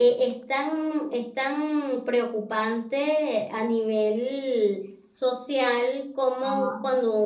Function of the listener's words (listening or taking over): listening